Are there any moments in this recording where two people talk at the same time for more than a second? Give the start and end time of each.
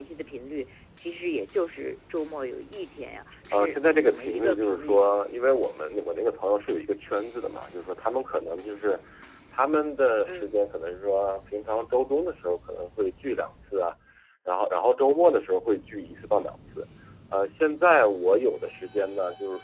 3.5-5.2

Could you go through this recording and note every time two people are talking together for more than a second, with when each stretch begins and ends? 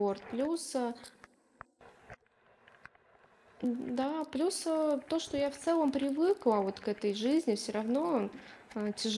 none

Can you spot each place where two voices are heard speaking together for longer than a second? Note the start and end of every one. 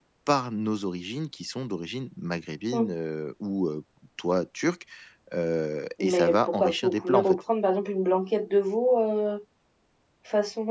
6.0-7.4

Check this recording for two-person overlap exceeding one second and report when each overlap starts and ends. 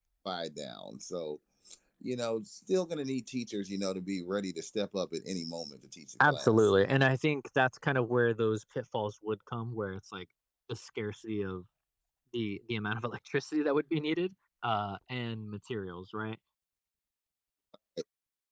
none

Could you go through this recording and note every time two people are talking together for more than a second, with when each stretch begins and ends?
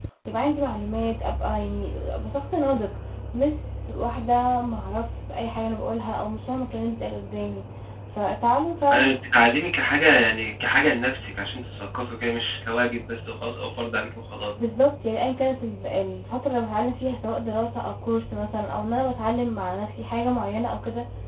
none

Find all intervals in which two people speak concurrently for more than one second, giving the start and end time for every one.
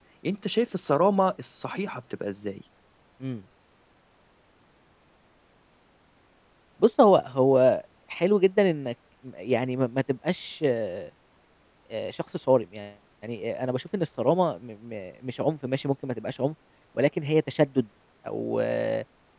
none

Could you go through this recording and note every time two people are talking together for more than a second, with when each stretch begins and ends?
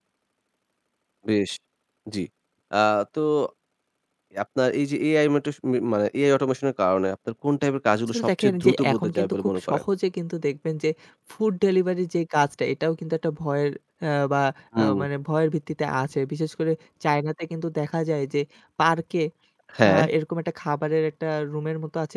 8.1-9.8

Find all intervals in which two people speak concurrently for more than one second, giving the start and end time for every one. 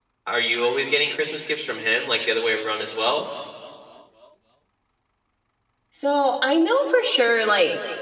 none

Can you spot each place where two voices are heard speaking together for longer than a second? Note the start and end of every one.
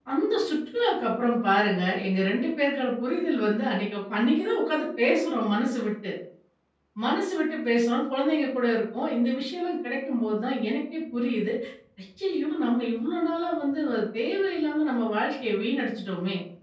none

